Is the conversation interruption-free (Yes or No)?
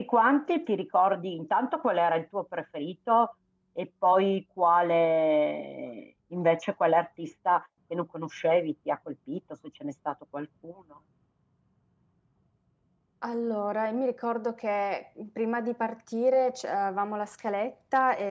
Yes